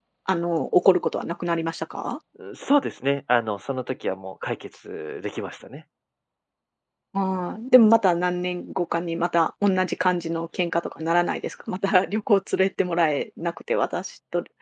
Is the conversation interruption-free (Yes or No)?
Yes